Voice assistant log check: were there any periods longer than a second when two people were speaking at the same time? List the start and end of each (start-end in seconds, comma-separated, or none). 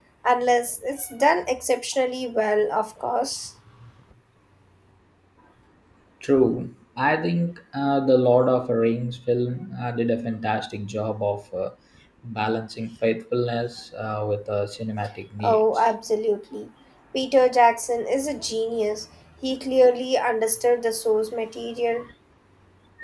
none